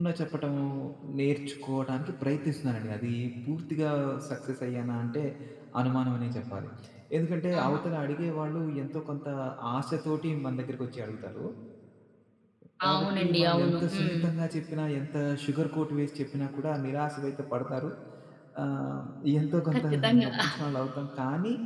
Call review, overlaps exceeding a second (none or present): present